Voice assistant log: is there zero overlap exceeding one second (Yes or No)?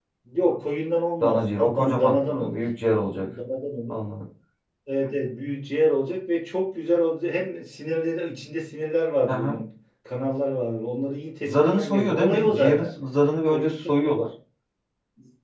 No